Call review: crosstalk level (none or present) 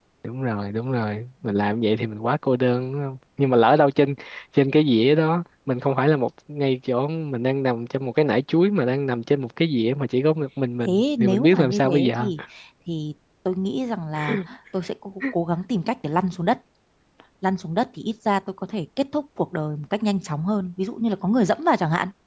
present